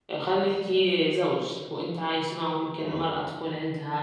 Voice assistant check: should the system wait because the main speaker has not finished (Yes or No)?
Yes